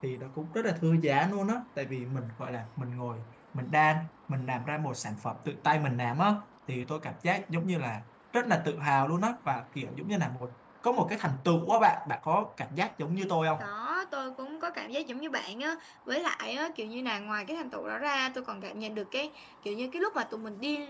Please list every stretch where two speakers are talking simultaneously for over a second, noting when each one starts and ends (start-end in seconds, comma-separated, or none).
none